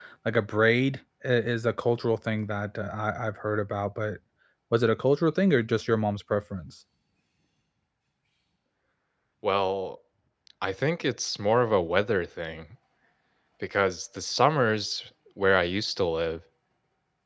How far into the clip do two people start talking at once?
none

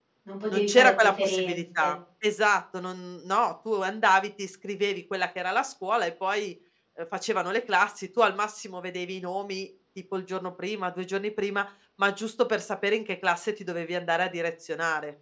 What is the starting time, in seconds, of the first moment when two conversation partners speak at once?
0.5 s

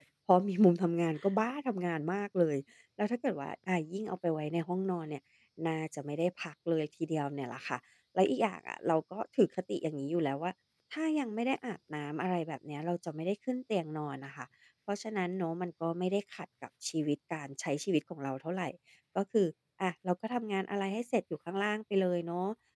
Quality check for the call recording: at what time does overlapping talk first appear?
none

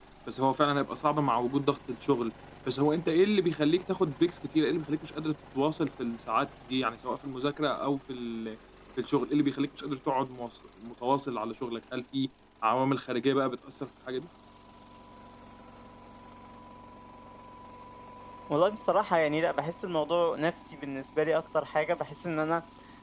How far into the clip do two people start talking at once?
none

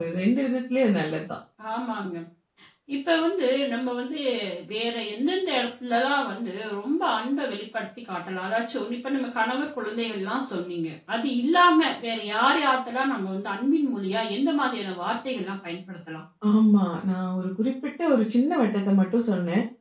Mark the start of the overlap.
none

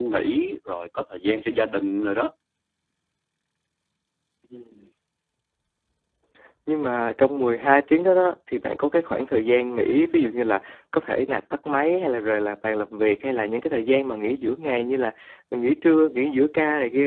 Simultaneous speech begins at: none

